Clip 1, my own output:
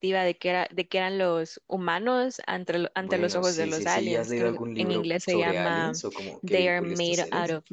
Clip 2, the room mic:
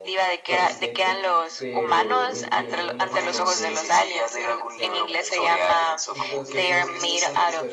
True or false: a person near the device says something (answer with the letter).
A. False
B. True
B